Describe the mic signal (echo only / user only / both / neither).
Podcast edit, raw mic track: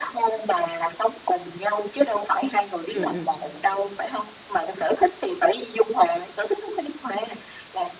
both